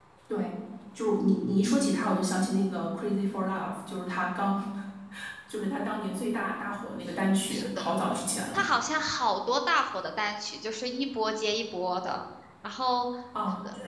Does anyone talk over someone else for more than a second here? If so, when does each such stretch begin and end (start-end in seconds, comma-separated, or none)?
none